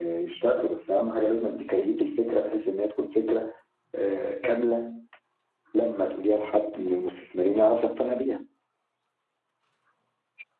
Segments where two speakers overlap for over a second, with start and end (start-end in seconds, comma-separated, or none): none